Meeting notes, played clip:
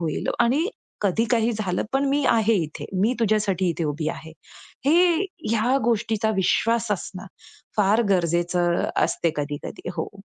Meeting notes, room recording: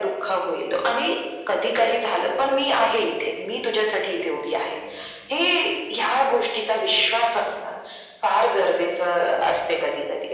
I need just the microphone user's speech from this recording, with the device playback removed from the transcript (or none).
none